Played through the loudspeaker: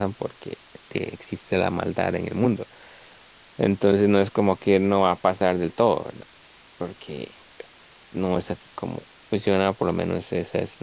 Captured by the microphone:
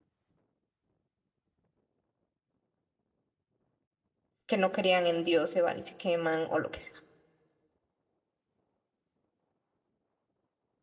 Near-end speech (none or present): present